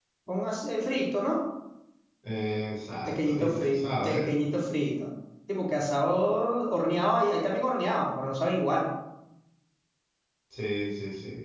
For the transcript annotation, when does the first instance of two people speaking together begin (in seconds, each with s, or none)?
3.0 s